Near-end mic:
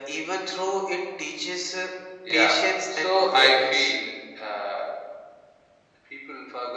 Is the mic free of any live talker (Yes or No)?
Yes